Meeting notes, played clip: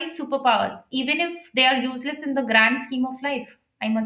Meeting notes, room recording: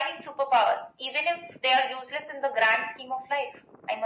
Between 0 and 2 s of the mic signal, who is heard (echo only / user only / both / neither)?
echo only